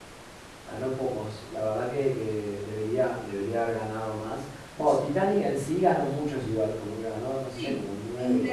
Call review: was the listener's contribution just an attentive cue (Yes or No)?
No